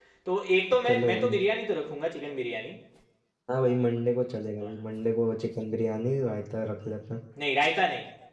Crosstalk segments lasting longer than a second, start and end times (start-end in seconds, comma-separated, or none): none